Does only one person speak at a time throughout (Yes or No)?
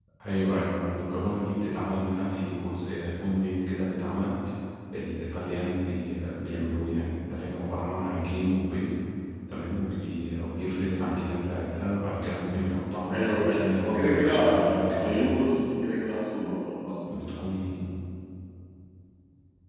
No